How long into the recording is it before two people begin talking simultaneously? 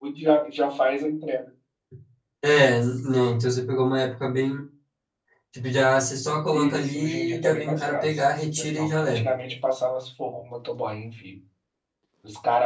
6.5 s

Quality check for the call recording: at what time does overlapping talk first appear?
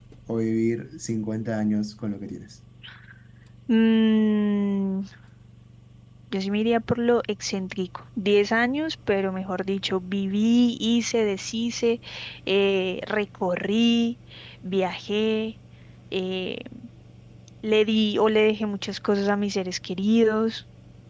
none

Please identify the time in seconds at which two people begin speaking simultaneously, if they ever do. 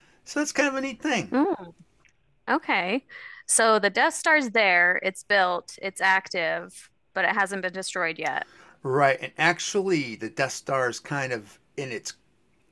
none

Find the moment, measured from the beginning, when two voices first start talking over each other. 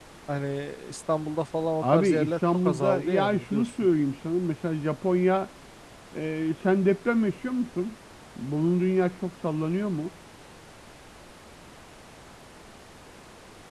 1.8 s

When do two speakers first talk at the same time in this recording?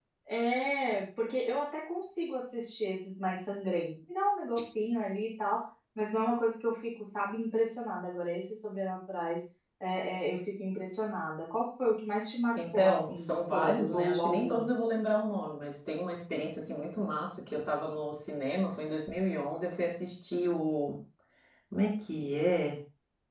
12.6 s

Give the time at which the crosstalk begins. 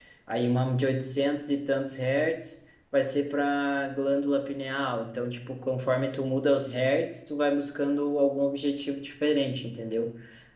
none

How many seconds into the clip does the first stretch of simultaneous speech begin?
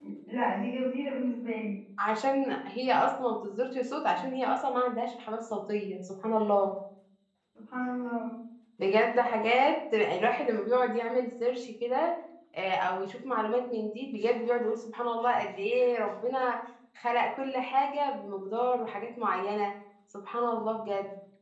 none

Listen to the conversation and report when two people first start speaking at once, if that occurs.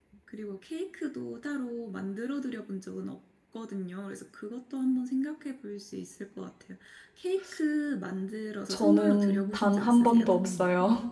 8.7 s

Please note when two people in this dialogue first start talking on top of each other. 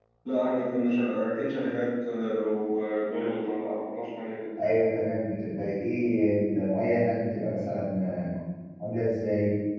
none

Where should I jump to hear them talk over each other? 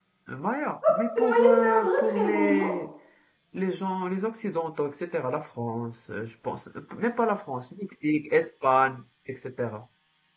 1.1 s

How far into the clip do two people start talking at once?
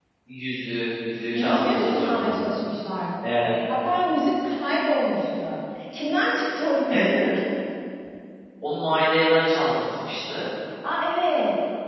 1.3 s

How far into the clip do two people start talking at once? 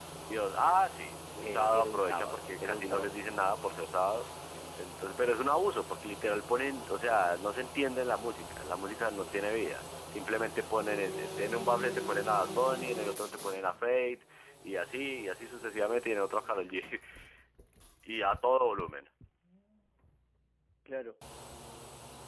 1.4 s

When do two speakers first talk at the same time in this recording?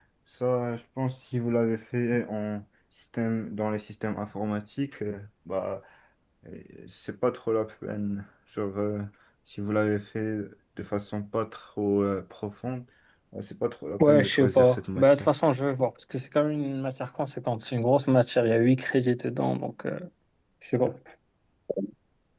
14.0 s

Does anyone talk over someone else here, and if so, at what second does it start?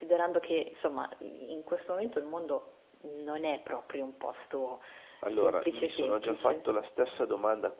5.3 s

